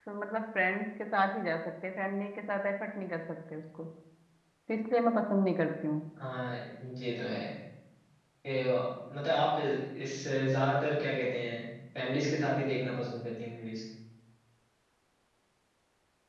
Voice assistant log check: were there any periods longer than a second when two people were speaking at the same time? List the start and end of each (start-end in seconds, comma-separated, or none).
none